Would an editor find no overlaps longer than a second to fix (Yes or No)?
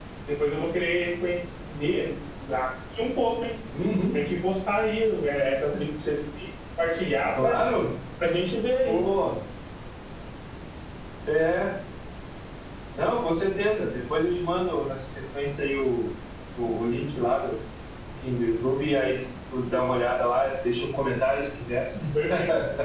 Yes